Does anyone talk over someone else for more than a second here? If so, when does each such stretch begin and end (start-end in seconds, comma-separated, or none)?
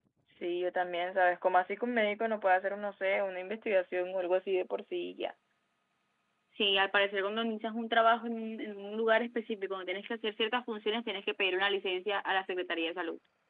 none